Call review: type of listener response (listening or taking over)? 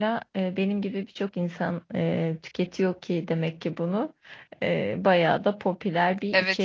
taking over